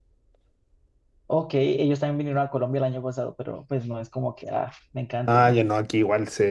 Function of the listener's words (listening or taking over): taking over